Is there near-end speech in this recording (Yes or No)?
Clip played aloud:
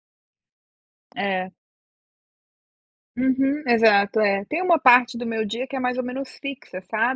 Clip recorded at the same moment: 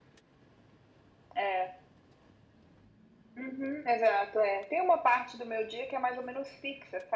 No